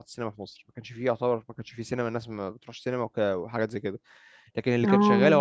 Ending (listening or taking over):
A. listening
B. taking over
A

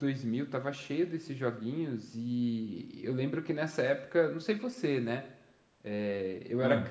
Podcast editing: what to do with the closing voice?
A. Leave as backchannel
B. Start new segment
A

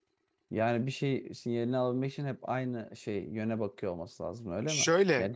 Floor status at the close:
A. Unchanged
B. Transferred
B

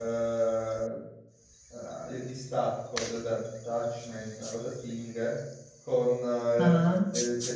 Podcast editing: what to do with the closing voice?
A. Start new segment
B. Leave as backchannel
B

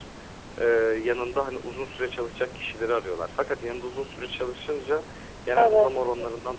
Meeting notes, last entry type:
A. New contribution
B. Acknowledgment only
B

